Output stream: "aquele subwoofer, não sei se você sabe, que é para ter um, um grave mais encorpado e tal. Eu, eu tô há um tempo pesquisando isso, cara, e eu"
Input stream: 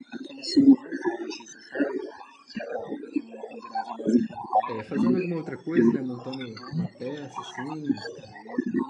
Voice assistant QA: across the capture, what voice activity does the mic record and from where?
both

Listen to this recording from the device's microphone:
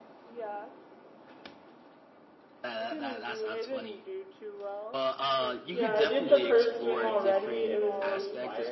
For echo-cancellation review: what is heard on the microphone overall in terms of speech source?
both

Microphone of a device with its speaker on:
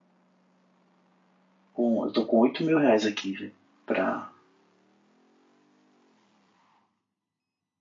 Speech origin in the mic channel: user only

